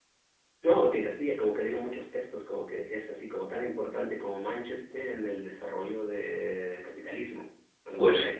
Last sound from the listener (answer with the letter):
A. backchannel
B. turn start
B